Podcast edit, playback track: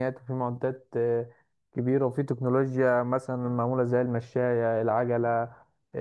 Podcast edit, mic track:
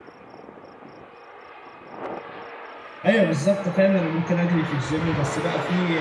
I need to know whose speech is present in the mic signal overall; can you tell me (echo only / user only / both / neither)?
user only